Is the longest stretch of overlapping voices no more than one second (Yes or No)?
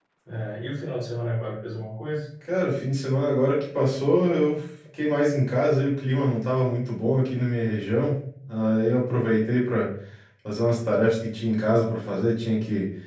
Yes